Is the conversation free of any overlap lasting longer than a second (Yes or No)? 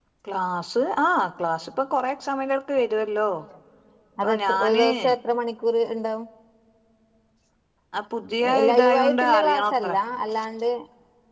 No